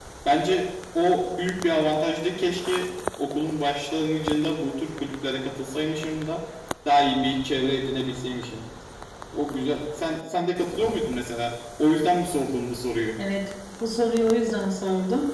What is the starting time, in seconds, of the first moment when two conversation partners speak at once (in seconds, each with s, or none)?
none